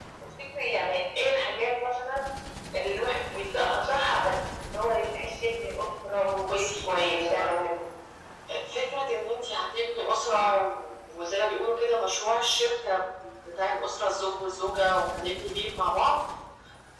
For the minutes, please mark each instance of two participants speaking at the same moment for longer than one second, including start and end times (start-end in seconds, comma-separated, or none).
6.4-7.8